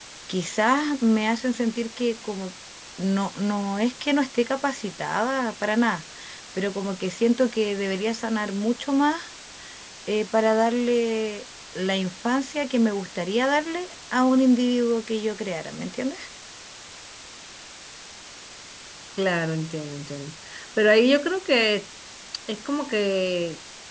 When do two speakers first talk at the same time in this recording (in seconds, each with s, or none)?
none